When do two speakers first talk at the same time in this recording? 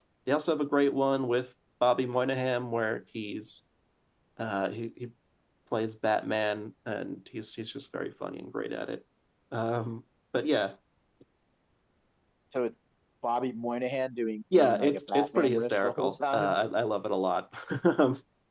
14.5 s

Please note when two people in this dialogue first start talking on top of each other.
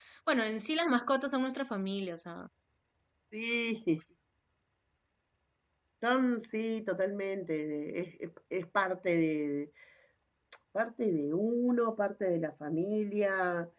none

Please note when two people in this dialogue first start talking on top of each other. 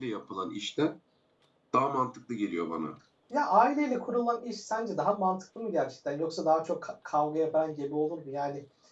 none

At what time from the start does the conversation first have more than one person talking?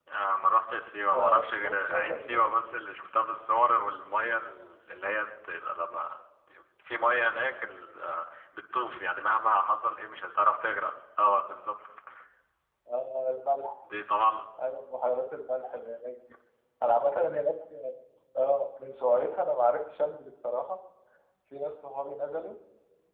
1.1 s

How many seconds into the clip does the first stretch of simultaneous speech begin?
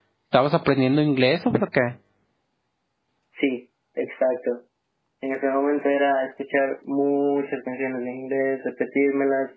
none

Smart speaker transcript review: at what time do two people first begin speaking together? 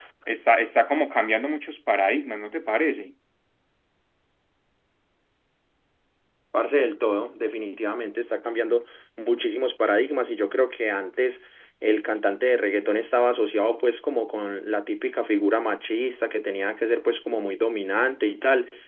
none

